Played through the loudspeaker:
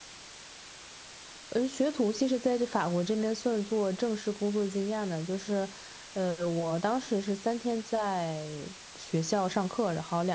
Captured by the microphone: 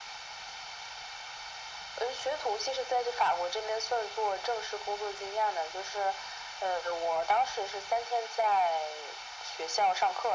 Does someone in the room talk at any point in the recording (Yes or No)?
No